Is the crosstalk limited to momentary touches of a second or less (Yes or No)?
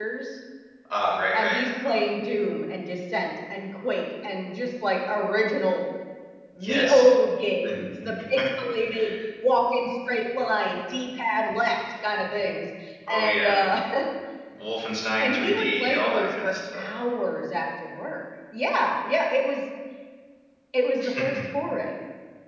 No